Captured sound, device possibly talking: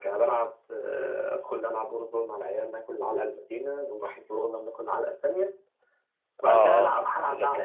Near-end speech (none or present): present